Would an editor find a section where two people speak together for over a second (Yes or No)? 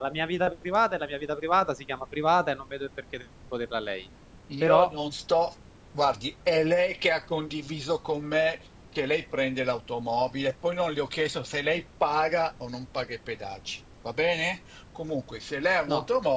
No